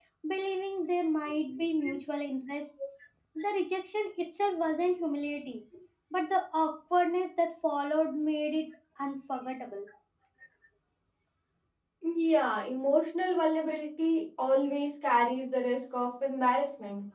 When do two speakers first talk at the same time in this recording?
none

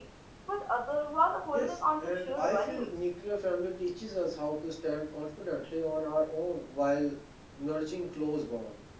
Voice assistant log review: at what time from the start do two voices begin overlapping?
1.5 s

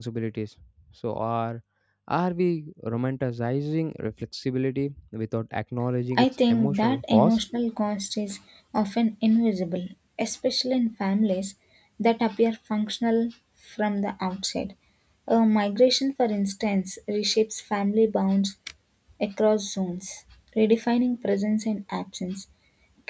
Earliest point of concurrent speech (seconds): 6.1 s

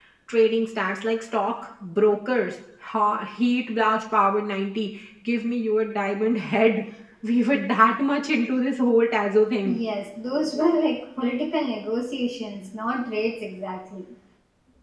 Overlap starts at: none

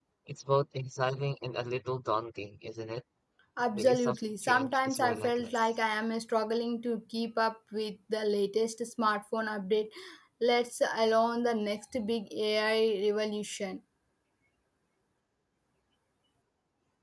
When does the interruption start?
3.8 s

